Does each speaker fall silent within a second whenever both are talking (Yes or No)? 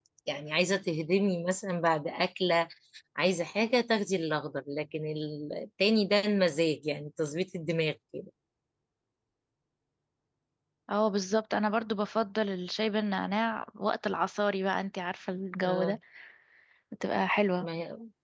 Yes